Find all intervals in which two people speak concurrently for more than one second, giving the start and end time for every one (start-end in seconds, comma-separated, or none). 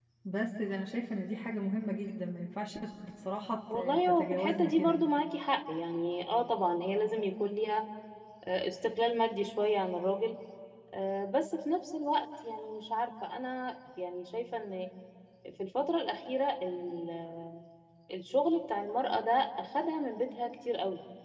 3.7-5.1